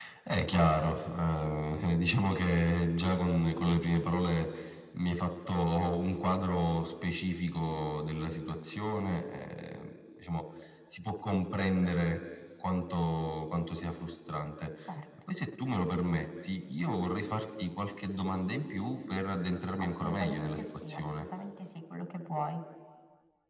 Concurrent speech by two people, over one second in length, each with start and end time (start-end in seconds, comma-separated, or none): 19.8-21.2